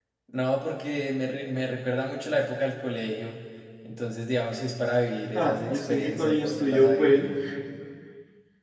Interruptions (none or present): present